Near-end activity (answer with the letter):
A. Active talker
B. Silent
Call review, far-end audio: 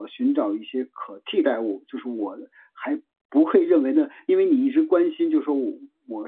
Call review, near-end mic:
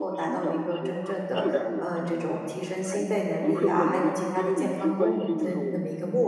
A